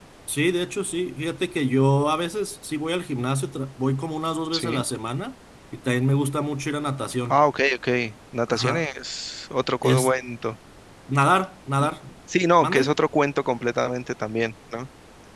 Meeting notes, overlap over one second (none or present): none